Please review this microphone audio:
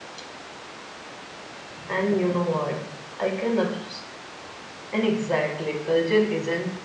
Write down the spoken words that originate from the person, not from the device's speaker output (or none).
none